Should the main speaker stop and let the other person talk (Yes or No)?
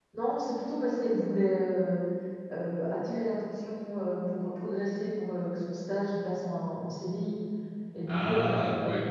No